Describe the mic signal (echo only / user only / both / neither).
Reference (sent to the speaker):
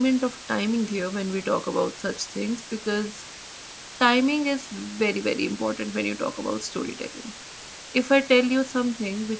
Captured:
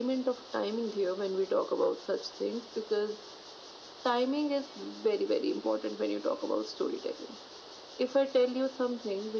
echo only